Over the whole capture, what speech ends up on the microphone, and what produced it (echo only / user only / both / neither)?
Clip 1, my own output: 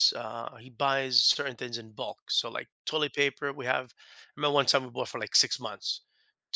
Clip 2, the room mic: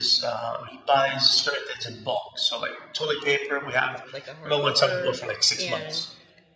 both